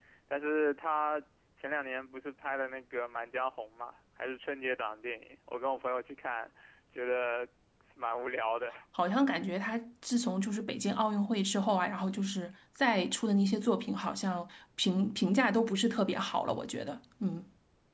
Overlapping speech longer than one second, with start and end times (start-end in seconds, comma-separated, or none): none